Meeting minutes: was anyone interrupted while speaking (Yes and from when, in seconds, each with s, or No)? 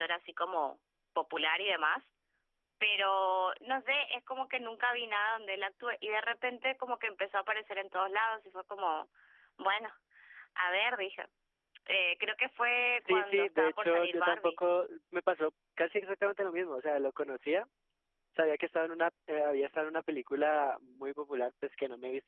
Yes, from 13.0 s